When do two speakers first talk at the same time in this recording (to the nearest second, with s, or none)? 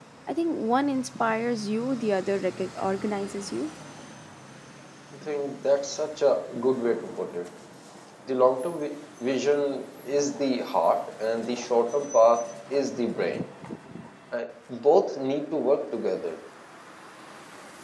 none